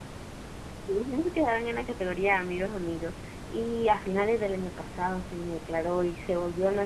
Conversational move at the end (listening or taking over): listening